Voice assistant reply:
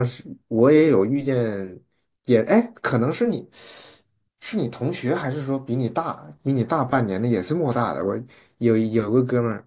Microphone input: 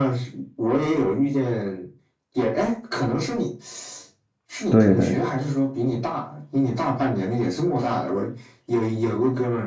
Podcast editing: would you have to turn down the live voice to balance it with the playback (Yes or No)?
Yes